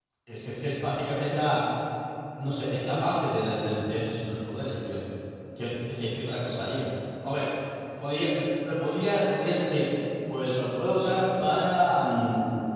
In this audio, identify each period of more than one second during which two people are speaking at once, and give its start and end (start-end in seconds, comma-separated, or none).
none